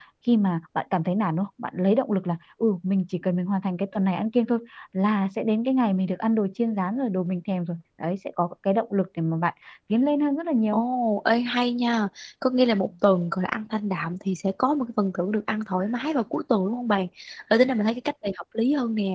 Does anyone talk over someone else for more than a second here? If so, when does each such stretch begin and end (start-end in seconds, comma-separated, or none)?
none